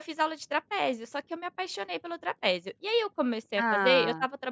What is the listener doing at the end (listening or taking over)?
listening